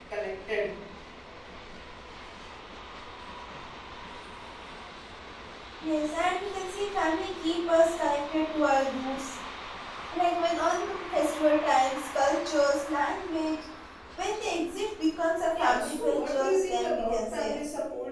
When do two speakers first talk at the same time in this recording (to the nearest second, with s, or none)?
16 s